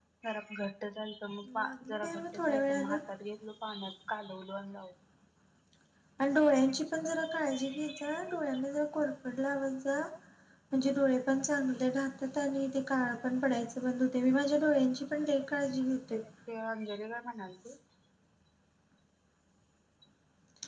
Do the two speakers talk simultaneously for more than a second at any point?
Yes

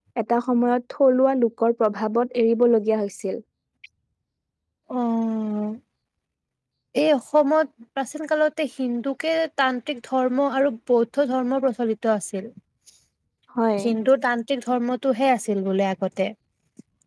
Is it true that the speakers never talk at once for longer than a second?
Yes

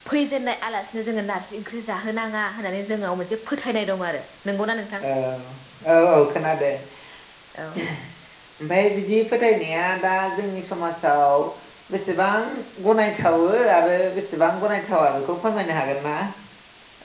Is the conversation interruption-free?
Yes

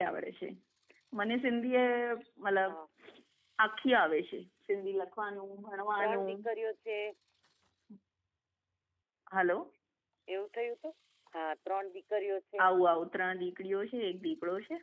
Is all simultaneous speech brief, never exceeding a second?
Yes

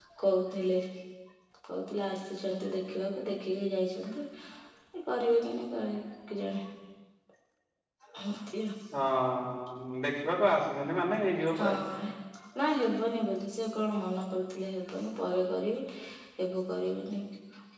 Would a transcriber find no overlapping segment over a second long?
Yes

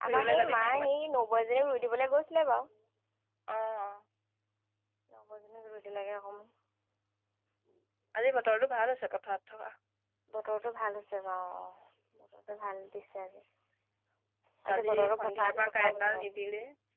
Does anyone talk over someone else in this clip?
Yes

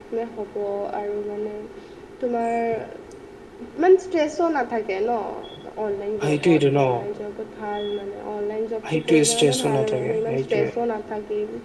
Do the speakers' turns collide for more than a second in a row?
Yes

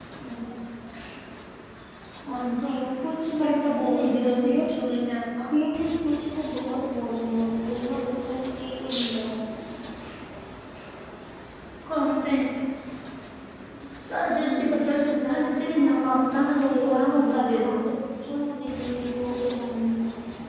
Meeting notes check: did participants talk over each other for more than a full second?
Yes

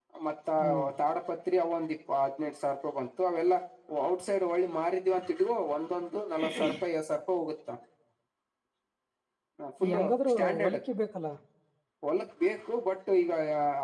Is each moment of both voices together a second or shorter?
Yes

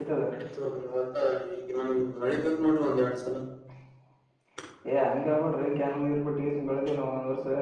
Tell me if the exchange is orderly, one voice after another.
Yes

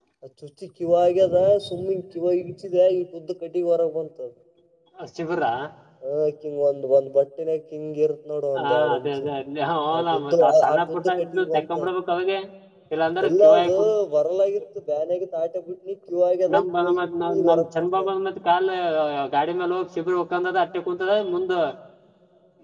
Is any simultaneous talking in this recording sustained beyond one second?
Yes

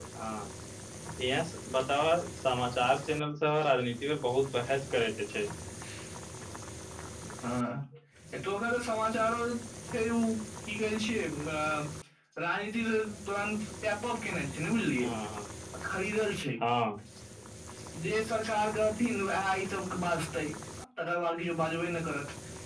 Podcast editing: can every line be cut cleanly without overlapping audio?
Yes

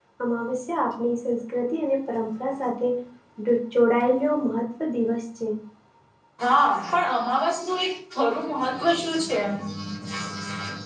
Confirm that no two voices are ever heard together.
Yes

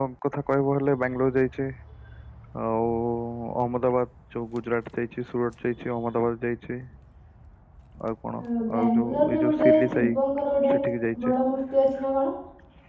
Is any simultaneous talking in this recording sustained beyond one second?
Yes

